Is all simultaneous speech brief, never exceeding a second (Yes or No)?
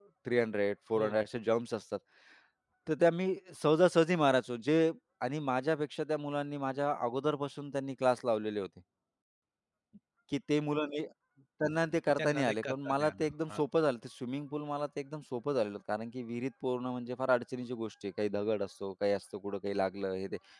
No